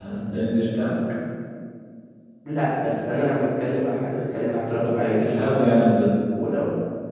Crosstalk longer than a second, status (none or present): none